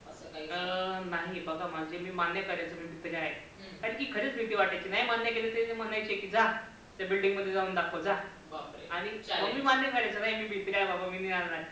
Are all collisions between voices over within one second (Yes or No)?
Yes